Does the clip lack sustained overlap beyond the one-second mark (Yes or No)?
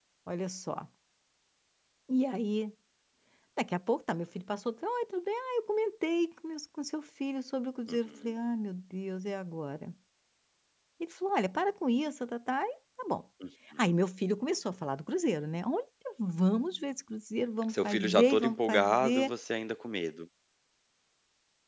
No